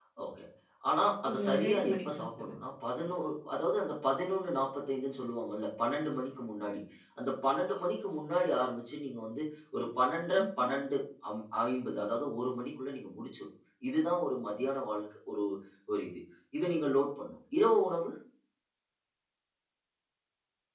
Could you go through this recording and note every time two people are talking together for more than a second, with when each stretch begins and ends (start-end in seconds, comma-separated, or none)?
1.3-2.5